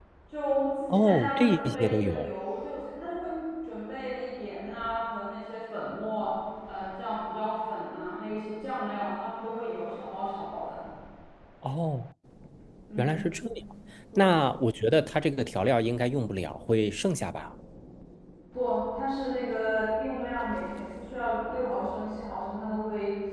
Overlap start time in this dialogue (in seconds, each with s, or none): 0.9 s